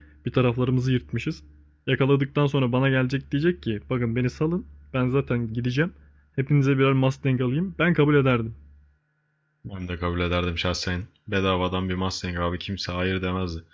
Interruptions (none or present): none